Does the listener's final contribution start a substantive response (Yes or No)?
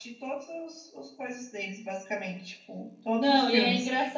Yes